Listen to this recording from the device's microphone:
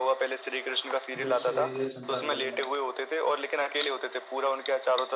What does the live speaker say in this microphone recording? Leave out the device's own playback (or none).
जब से ये संसार बना है